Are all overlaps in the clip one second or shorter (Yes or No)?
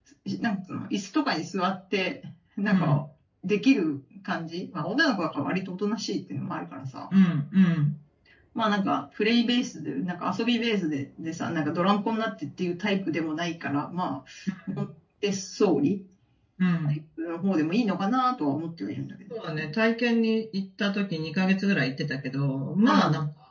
Yes